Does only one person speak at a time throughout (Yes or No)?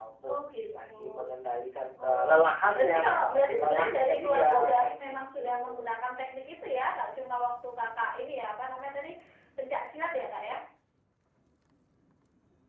No